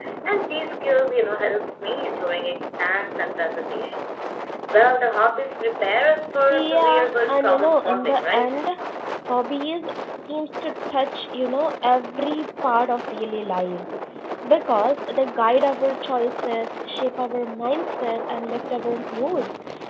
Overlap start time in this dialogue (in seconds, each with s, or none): 6.5 s